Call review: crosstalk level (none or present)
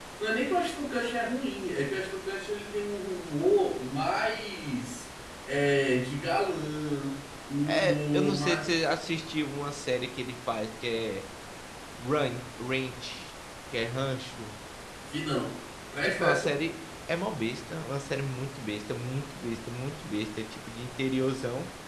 present